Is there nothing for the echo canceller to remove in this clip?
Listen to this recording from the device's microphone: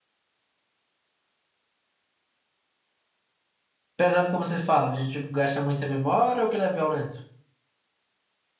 Yes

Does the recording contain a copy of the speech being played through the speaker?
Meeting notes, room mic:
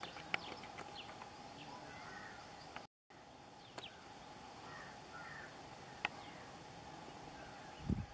No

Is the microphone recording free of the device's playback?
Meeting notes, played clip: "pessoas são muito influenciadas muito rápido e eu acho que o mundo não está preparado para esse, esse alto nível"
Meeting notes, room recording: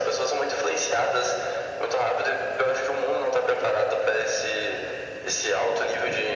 No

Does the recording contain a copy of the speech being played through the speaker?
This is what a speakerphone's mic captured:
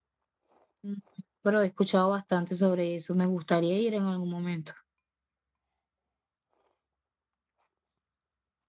No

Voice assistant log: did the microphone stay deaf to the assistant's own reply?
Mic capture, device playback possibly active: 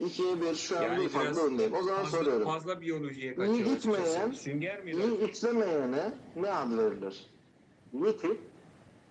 No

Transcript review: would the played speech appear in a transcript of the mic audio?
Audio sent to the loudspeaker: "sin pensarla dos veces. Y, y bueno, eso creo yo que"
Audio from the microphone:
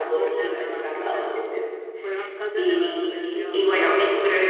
Yes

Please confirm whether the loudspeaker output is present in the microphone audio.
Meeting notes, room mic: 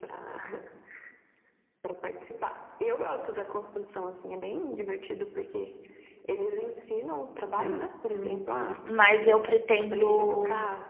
Yes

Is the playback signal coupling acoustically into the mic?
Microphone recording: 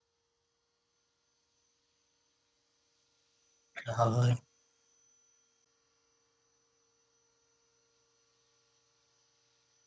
No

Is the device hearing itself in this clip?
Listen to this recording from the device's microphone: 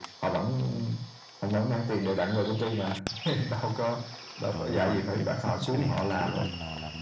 Yes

